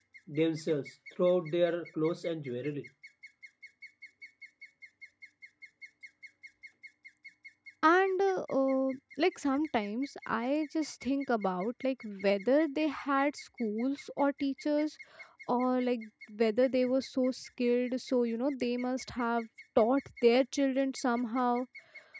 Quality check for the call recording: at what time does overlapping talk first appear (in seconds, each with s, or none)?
none